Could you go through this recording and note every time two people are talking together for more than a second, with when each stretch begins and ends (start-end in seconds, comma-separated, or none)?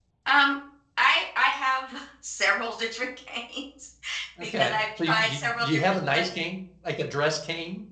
4.4-6.3